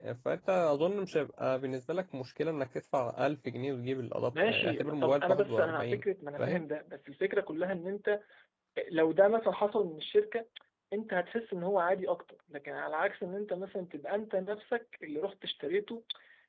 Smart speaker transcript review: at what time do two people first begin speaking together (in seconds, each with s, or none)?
4.3 s